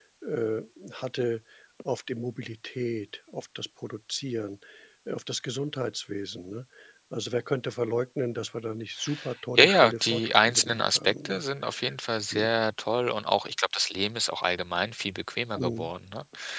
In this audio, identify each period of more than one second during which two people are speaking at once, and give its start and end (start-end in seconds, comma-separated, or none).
9.6-11.4